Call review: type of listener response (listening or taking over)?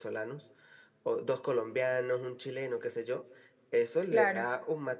listening